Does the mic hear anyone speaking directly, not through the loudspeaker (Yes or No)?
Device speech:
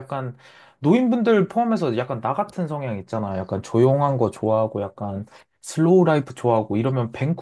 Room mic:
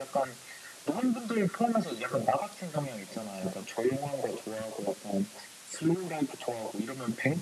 No